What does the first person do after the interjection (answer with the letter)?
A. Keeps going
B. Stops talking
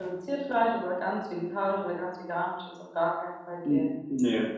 B